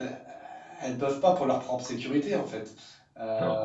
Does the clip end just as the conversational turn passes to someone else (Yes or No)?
No